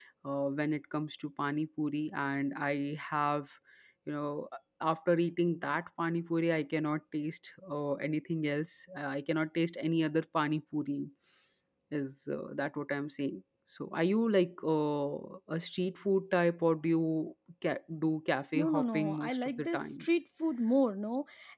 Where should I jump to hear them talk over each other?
18.6 s

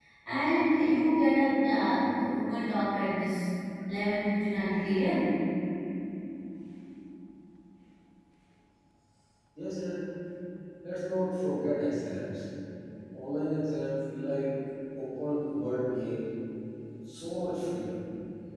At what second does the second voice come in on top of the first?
none

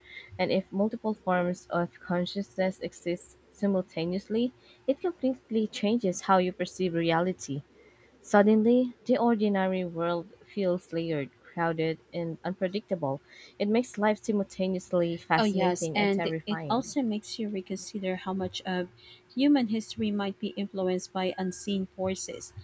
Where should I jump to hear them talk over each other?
15.4 s

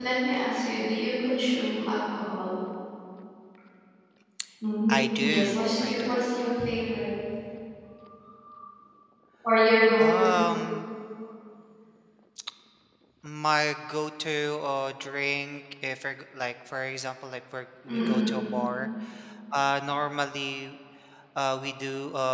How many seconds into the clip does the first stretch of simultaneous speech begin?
4.9 s

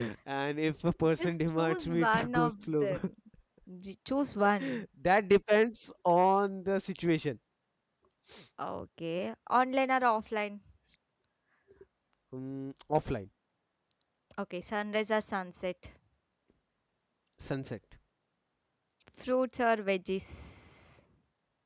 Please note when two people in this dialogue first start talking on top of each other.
1.2 s

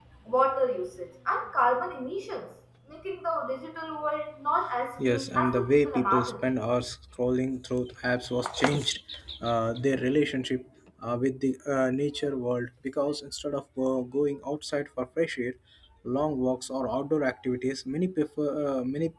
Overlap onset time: 5.0 s

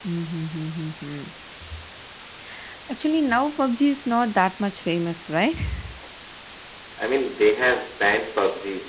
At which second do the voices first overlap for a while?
none

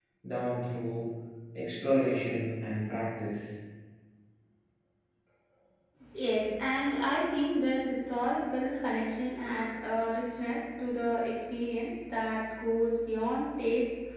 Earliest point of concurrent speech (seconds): none

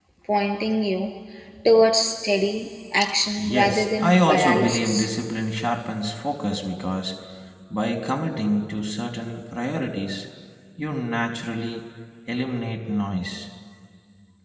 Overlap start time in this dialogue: 3.4 s

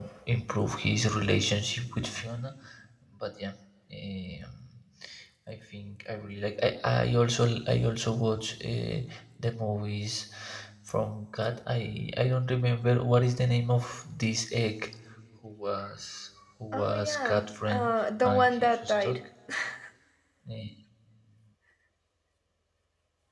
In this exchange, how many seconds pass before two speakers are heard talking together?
16.7 s

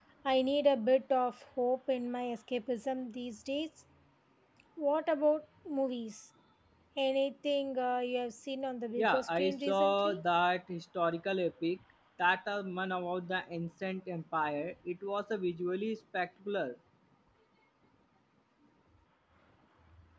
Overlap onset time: 9.0 s

